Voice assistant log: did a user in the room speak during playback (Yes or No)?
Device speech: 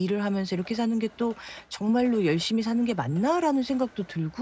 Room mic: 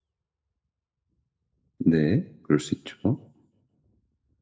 Yes